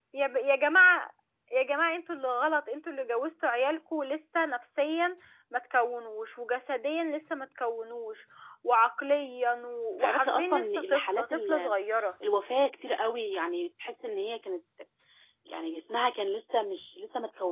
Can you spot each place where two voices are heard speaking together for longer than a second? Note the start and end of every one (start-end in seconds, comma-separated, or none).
10.0-11.7